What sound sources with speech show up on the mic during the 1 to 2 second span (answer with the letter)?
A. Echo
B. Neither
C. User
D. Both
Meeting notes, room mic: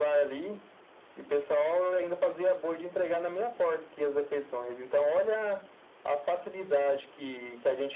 A